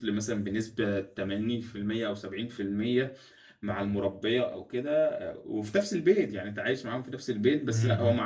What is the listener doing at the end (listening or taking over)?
listening